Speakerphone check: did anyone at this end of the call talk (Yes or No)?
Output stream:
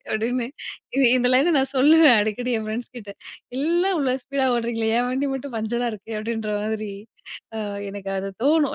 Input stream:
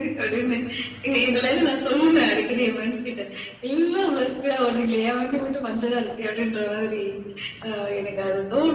No